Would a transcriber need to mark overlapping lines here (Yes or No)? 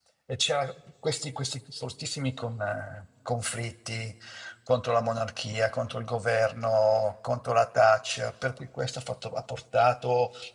No